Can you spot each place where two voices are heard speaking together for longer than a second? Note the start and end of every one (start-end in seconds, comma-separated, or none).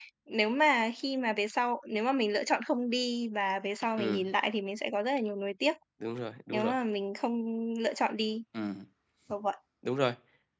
none